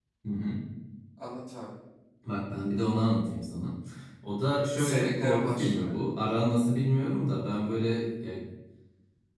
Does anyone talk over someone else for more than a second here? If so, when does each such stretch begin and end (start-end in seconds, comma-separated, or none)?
4.7-6.0